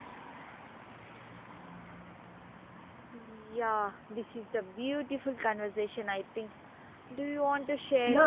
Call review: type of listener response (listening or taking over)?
taking over